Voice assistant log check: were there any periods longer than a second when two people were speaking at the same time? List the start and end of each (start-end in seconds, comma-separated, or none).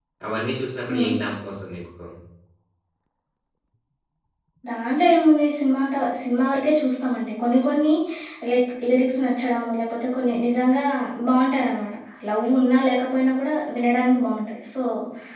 none